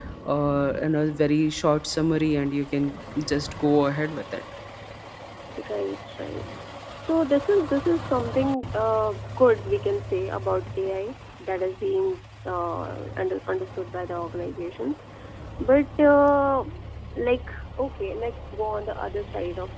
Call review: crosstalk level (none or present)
none